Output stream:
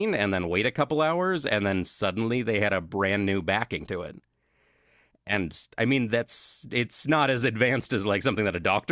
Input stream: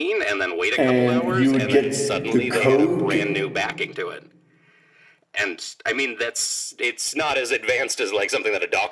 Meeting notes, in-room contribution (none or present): present